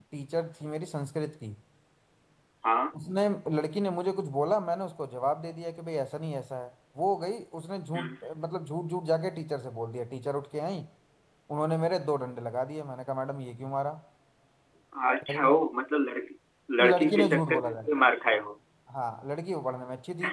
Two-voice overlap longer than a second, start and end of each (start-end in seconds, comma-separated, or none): 16.8-18.4